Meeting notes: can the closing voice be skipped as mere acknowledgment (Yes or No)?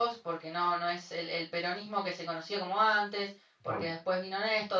Yes